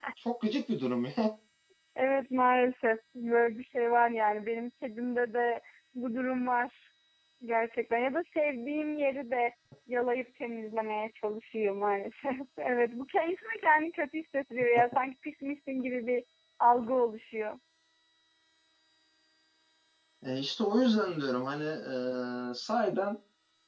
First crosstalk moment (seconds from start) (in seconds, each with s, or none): none